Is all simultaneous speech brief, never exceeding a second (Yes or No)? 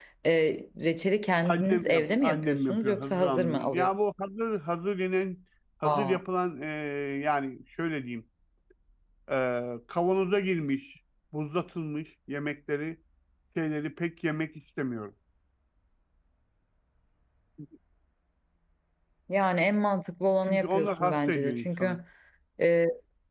No